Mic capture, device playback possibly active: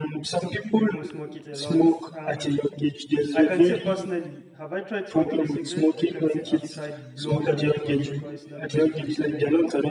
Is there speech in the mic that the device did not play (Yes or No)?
Yes